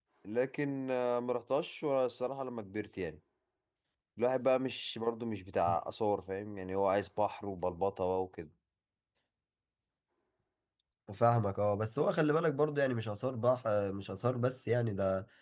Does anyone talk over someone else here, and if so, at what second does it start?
none

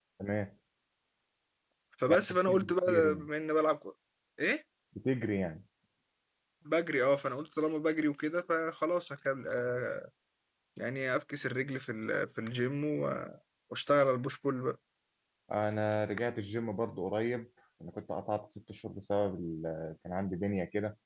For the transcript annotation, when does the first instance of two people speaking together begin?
2 s

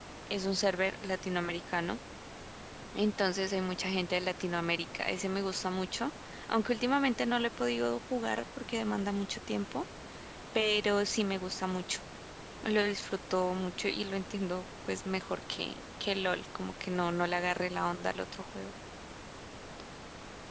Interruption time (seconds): none

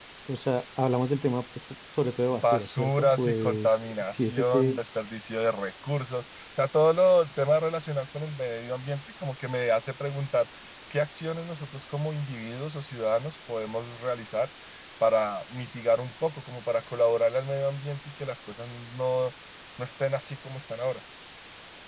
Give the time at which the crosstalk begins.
2 s

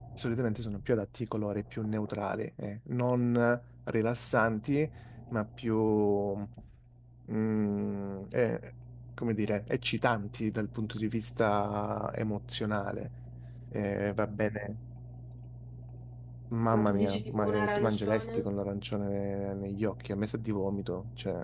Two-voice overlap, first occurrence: 17 s

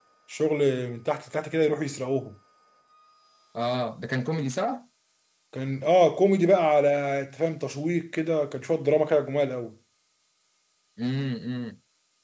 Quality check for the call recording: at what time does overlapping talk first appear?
none

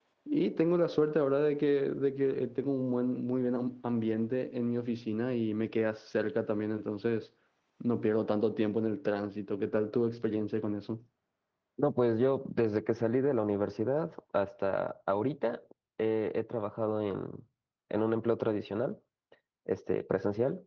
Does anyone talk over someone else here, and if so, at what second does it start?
none

